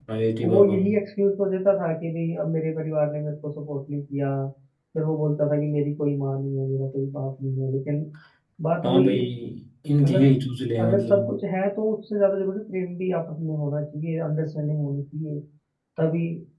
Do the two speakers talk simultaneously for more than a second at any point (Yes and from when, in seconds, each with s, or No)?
No